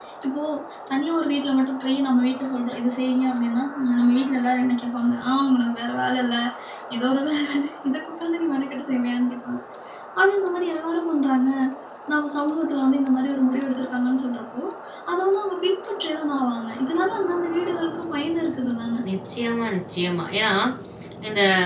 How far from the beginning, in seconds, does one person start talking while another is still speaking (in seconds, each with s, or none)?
none